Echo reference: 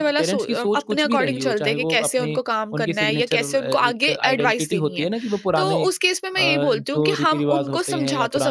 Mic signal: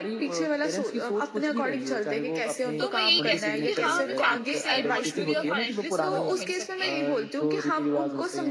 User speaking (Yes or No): Yes